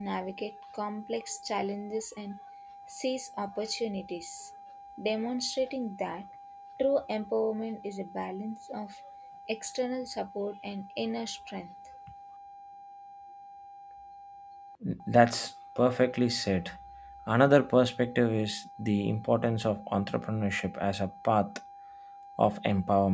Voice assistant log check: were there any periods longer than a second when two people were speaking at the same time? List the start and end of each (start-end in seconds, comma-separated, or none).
none